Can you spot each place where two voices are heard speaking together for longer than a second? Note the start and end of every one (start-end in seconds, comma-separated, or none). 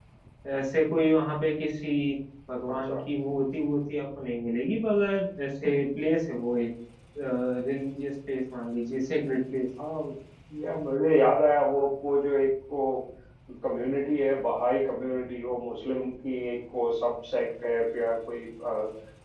none